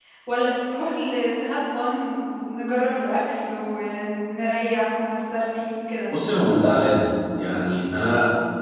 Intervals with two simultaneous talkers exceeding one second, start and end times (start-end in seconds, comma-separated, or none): none